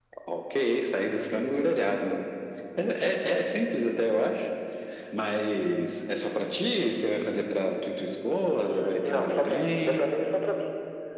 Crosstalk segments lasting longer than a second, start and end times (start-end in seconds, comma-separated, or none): 8.6-10.0